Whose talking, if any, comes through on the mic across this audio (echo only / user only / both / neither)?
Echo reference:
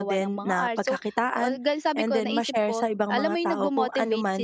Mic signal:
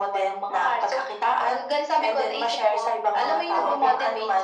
both